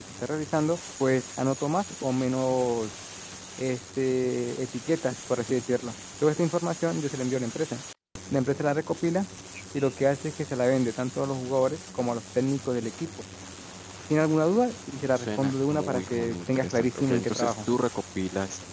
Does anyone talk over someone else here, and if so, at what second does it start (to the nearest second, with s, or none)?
15 s